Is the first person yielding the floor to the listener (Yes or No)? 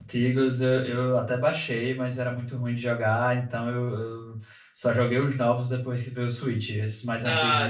Yes